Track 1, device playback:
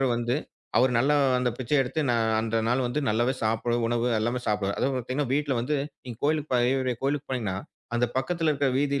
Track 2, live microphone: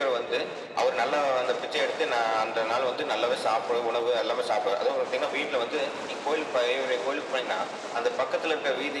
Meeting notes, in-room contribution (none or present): none